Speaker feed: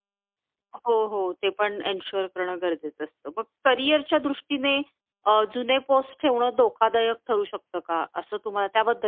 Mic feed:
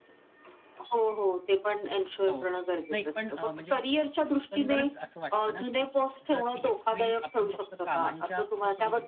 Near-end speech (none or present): present